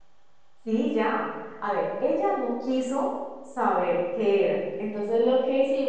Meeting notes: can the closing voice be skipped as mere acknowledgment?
Yes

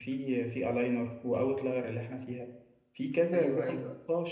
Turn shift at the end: No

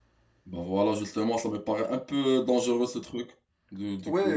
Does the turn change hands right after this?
Yes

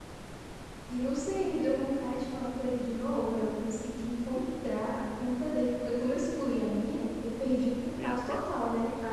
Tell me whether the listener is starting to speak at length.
No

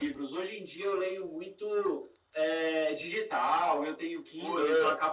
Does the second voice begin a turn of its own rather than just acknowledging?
No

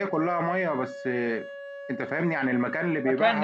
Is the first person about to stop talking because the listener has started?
Yes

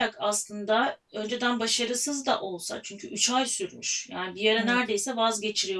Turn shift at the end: No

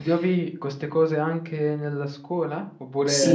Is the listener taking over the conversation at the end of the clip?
Yes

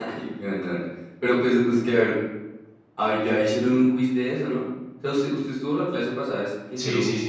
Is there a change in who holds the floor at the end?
Yes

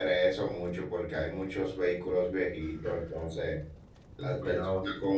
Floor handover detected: No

